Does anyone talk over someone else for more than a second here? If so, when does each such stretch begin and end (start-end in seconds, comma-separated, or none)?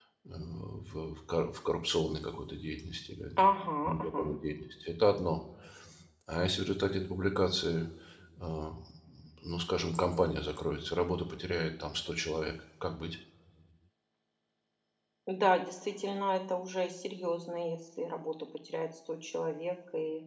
none